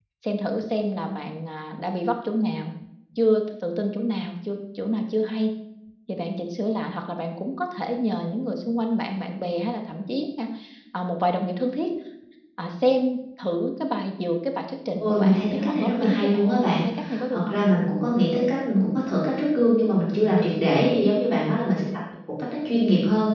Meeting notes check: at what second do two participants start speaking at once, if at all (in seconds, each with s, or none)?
15.0 s